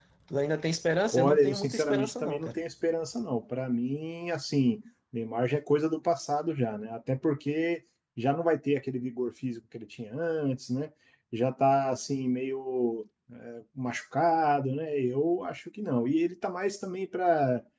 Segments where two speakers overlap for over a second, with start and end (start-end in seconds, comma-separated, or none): 1.1-2.5